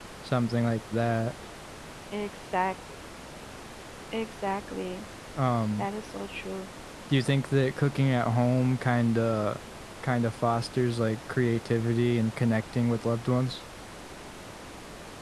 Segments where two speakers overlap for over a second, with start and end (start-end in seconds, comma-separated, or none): none